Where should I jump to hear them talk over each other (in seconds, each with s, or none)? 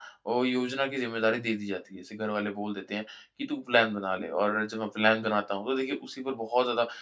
none